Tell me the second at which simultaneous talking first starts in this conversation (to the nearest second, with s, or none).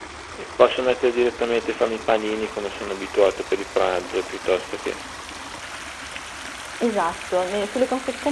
none